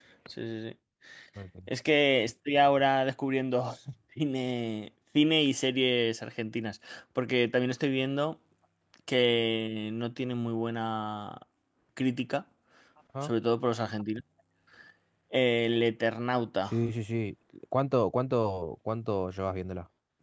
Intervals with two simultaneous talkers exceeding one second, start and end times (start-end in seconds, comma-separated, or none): none